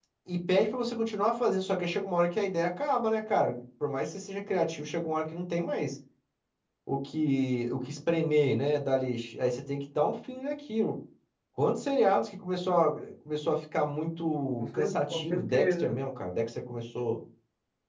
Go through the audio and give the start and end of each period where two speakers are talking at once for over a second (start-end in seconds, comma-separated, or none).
14.6-16.0